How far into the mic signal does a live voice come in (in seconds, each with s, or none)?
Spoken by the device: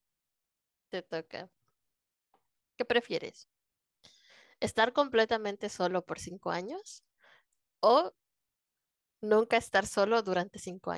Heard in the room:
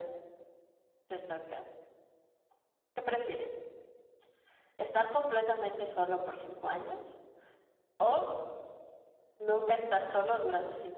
none